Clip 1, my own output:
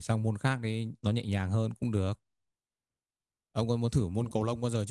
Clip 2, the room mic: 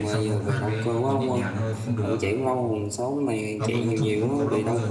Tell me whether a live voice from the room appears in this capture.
Yes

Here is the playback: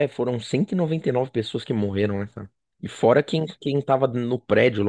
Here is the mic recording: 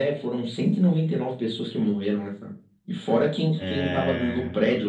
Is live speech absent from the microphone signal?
No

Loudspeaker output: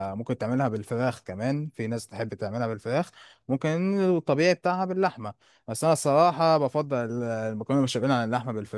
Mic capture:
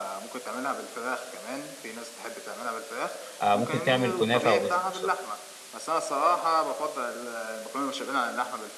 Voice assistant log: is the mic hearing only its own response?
No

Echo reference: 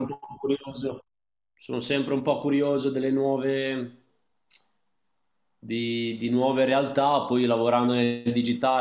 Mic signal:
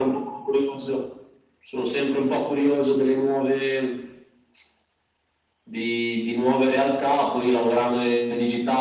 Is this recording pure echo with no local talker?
Yes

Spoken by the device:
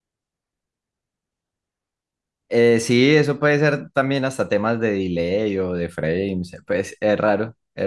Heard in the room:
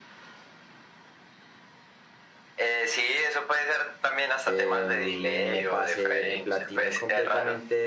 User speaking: Yes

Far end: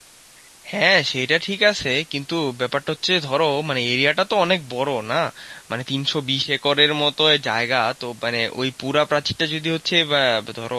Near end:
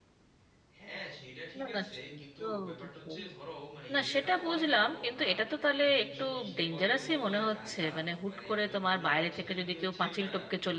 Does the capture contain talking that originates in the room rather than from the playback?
Yes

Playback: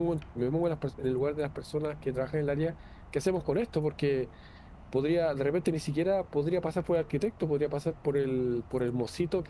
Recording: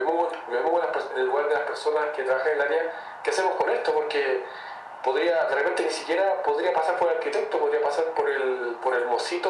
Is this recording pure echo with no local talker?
Yes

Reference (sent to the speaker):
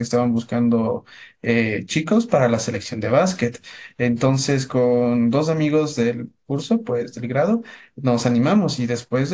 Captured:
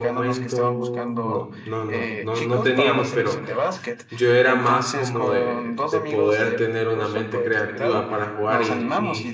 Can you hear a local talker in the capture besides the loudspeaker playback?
Yes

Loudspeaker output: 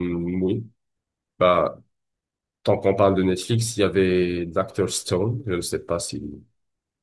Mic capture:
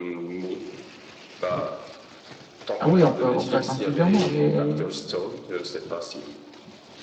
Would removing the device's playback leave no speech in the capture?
No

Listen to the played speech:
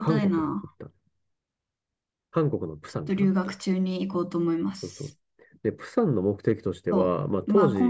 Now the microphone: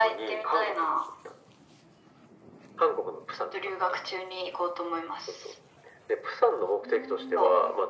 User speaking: Yes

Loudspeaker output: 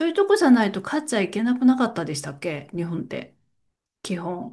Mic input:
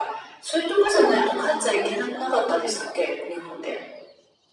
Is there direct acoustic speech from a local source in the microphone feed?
Yes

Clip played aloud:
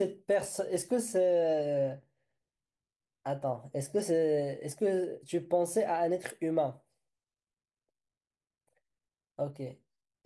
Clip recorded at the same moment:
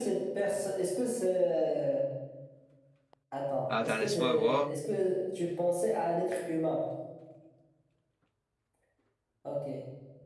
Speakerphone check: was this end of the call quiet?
No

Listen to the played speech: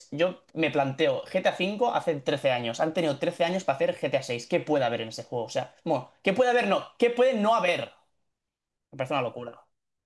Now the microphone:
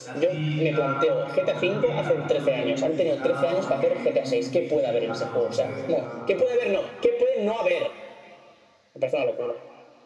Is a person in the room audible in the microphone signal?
Yes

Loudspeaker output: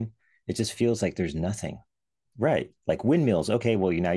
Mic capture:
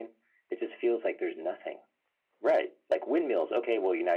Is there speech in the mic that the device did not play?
No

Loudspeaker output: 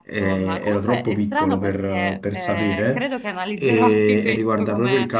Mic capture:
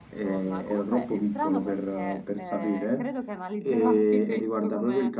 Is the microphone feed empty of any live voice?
Yes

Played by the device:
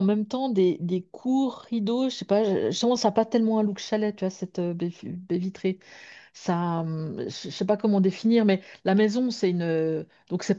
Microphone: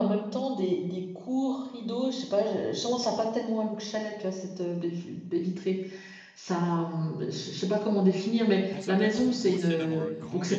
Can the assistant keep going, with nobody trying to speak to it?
No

